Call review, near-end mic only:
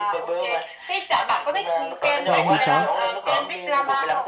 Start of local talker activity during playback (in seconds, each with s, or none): 2.2 s